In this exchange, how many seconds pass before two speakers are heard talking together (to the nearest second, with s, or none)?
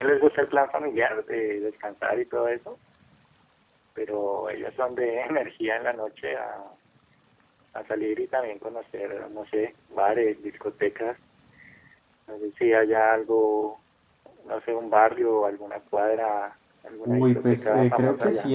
17 s